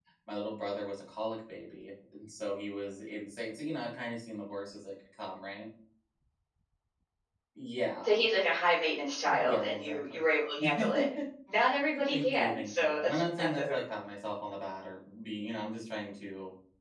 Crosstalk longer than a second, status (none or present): present